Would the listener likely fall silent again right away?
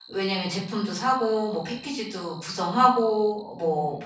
Yes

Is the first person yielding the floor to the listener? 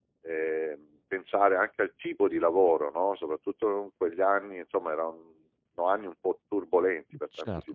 Yes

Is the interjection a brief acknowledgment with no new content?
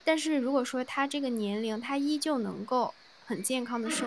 Yes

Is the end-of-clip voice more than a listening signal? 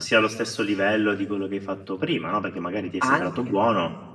No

